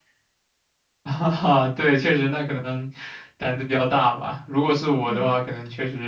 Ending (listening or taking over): listening